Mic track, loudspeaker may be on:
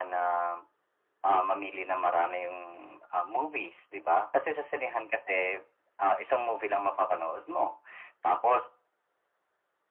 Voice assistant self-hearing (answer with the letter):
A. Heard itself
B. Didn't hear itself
A